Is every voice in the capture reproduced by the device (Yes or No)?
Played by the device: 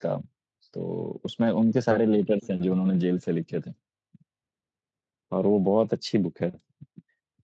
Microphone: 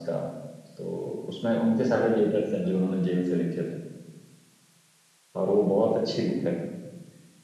Yes